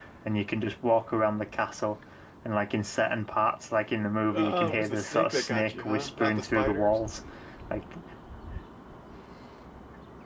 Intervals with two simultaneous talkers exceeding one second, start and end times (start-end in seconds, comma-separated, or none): 4.3-7.0